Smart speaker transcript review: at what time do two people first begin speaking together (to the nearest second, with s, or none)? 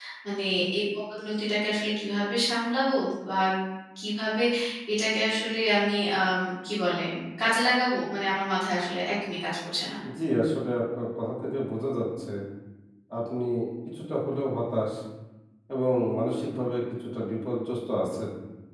none